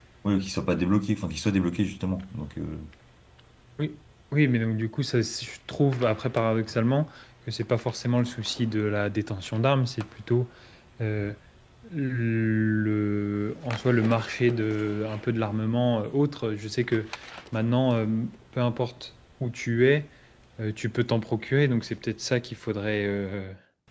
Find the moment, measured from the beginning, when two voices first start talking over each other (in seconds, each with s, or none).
none